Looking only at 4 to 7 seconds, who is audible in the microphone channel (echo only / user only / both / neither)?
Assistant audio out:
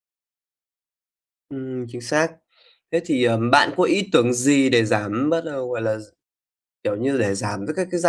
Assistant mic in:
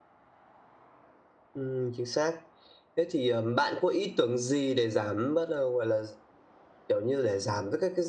echo only